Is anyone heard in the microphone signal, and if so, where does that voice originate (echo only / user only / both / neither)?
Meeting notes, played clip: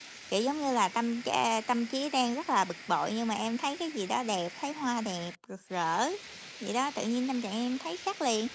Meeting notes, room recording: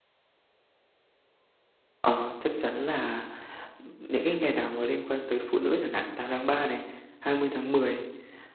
user only